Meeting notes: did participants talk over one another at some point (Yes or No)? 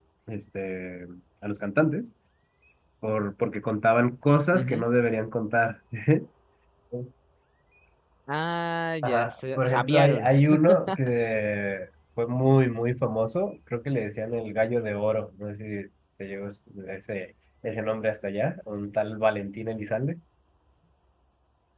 Yes